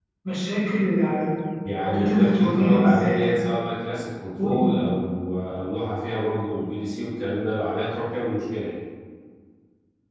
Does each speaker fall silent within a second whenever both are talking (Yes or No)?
No